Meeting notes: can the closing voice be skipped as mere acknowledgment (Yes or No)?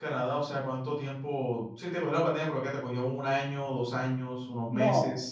No